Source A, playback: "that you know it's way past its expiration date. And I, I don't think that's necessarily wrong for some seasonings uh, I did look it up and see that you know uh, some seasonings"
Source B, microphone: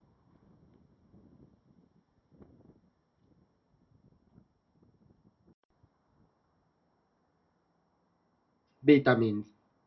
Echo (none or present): none